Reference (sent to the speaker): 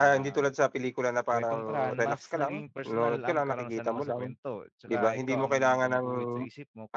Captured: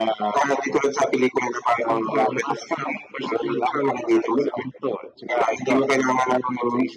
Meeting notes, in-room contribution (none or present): none